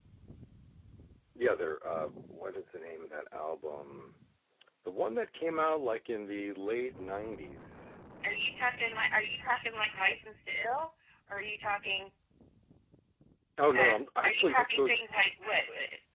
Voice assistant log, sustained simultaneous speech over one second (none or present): present